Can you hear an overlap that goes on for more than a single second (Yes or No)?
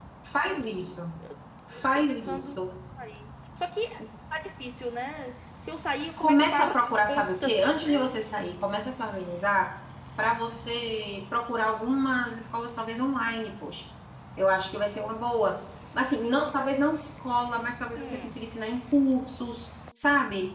Yes